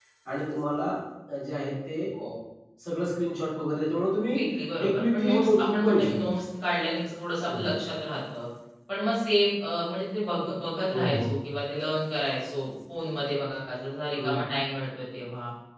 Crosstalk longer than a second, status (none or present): present